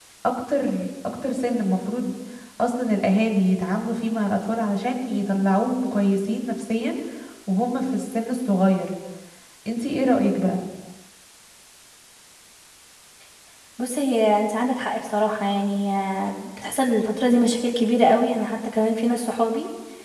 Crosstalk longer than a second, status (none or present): none